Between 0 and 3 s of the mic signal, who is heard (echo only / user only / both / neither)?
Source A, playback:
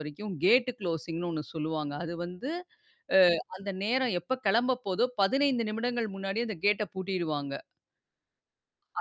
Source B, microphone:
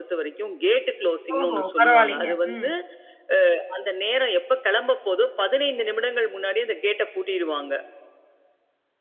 both